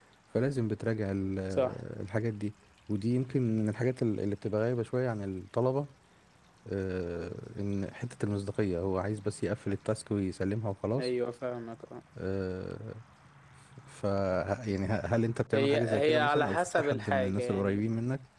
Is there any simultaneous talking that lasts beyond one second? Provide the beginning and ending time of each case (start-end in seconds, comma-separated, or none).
15.5-17.8